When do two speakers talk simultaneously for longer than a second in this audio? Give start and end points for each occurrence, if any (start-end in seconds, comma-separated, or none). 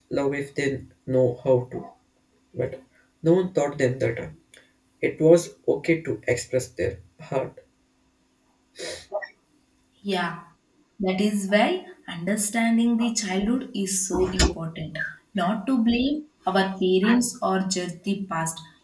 none